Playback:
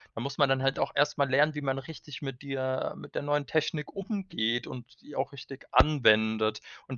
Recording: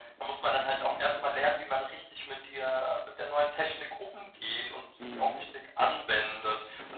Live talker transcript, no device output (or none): Mhm.